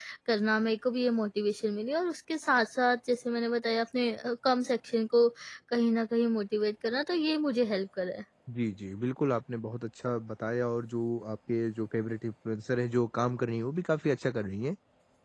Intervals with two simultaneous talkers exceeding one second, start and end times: none

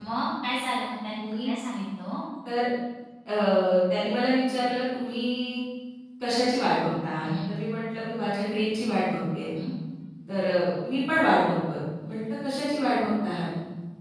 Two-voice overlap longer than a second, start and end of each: none

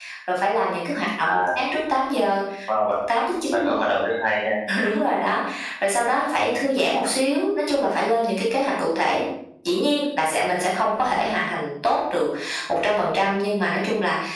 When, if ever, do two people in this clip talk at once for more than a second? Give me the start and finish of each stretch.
none

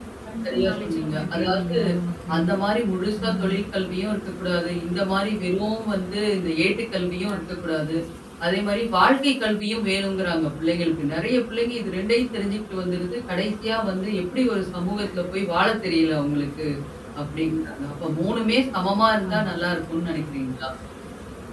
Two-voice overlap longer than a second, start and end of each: 0.5-1.7

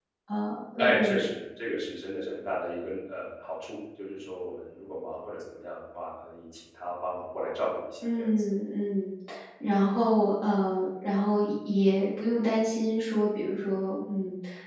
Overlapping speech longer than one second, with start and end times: none

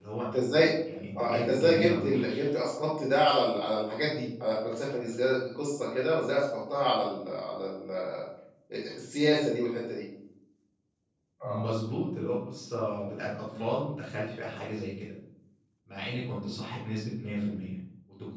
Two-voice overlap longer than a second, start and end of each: 1.2-2.5

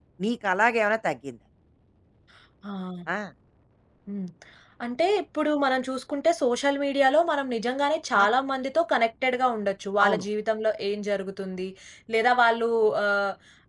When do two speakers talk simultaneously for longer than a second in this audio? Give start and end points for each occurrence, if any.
none

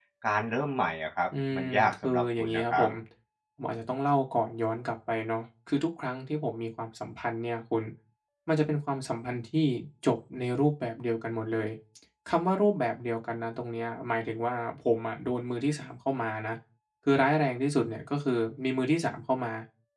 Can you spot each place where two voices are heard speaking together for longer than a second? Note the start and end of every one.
1.5-2.8

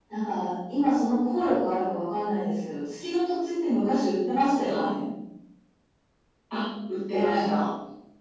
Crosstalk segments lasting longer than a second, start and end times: none

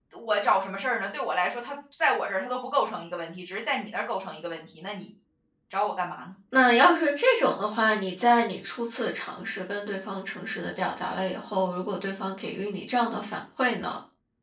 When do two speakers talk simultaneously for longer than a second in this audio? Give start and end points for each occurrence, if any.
none

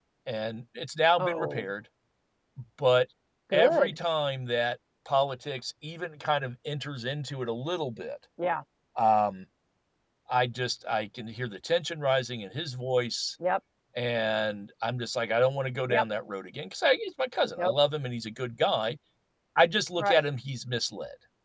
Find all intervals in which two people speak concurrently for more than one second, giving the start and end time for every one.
none

